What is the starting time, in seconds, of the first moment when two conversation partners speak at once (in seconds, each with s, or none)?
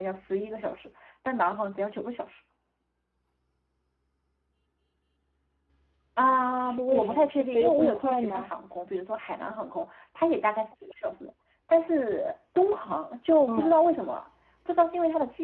6.2 s